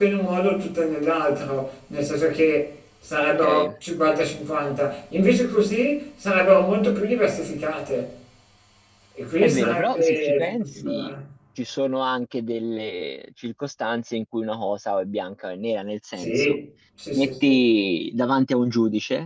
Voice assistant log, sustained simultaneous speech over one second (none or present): present